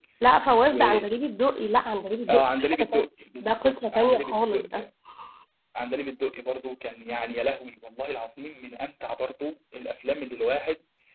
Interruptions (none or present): present